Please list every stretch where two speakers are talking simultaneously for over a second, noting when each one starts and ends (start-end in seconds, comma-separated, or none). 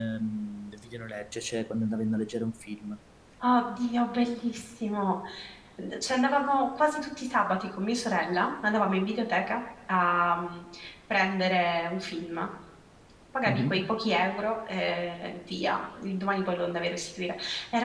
none